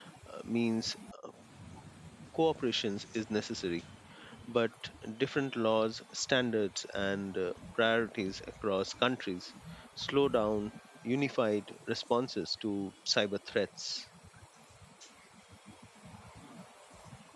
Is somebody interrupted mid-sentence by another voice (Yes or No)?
No